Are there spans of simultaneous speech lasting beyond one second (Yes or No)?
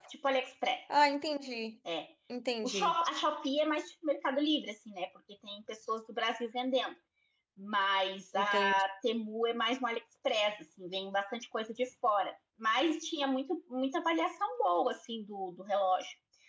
No